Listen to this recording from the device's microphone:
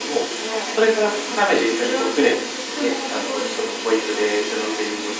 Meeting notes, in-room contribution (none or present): none